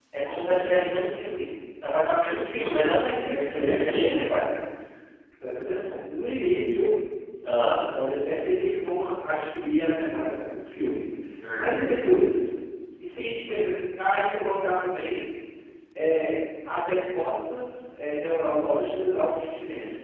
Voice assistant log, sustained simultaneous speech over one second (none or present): present